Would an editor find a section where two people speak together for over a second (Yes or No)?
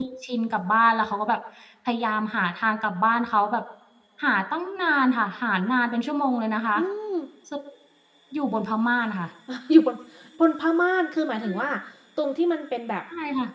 No